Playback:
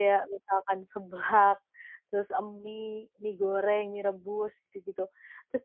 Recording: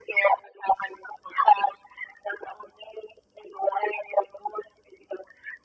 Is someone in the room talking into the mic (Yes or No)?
No